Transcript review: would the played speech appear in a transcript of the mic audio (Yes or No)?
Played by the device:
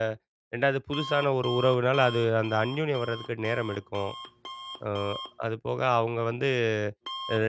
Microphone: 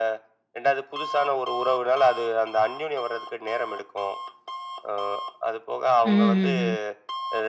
Yes